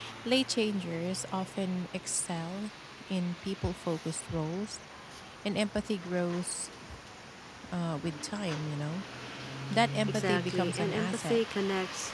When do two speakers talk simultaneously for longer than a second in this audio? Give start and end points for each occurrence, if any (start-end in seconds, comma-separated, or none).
10.1-11.4